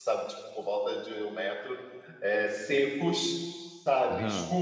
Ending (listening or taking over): listening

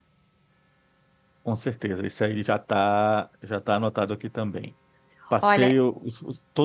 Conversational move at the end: listening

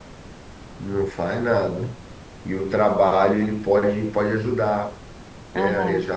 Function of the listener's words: listening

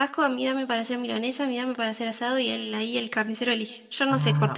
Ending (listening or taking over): taking over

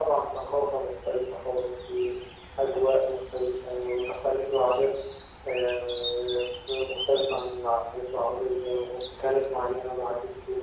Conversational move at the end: listening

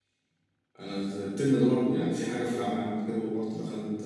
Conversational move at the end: listening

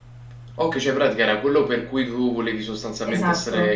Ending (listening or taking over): taking over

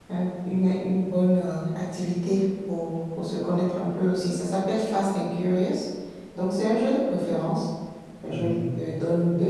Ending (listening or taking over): listening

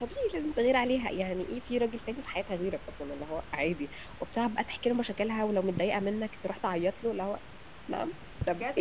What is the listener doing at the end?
taking over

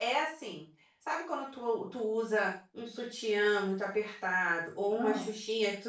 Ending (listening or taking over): listening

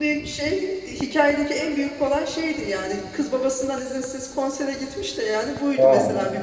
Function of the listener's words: listening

